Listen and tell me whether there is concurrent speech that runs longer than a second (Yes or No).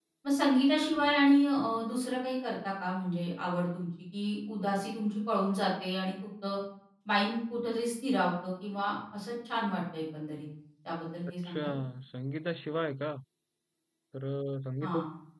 No